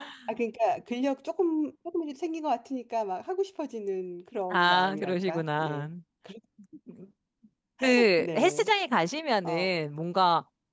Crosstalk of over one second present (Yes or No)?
Yes